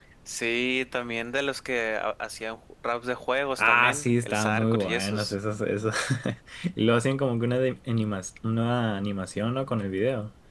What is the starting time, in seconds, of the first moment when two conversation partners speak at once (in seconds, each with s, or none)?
3.6 s